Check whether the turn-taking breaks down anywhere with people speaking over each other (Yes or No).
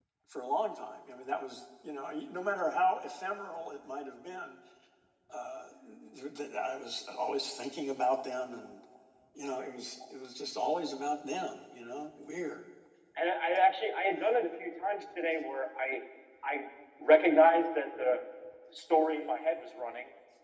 No